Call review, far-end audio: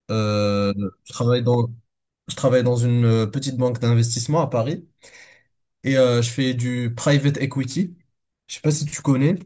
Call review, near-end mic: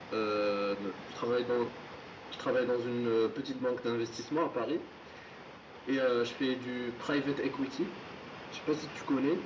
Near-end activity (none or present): none